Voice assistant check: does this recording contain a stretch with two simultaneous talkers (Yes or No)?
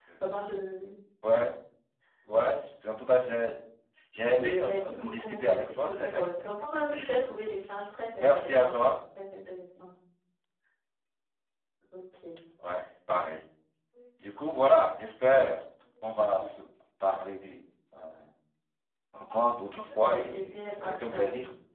Yes